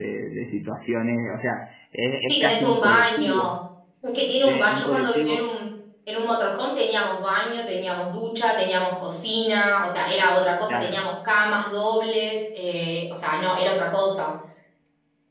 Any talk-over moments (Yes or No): Yes